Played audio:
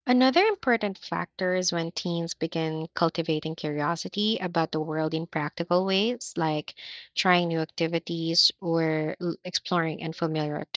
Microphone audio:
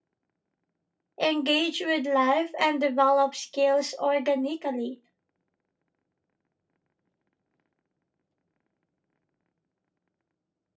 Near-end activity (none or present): present